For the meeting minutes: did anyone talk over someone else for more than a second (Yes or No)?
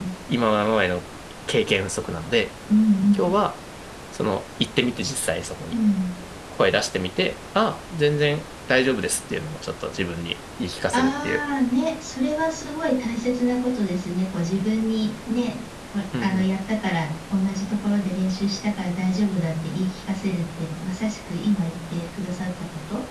No